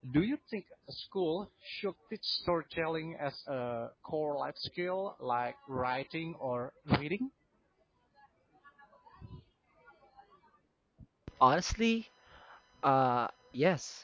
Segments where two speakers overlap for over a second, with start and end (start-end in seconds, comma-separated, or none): none